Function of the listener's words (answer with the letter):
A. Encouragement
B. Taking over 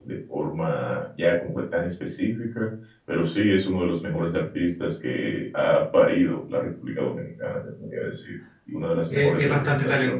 B